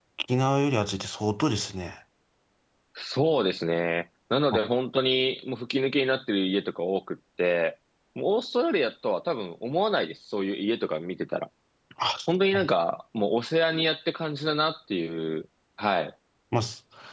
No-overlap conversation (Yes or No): Yes